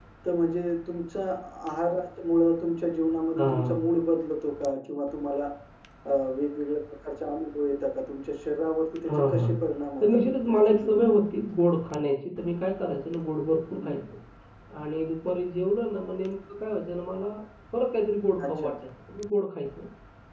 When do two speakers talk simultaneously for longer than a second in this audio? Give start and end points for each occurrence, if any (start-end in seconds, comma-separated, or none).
10.0-11.2